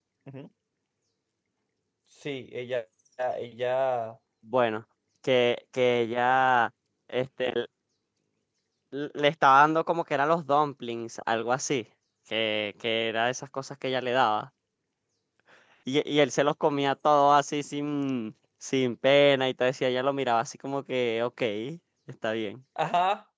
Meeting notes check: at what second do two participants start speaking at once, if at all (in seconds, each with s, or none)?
none